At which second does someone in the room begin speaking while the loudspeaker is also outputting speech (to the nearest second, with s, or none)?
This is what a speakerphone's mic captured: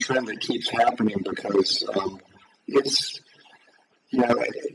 none